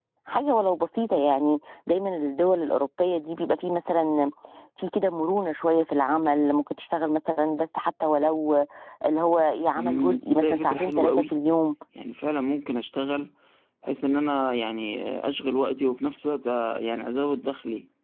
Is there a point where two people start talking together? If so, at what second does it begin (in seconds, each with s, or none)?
9.8 s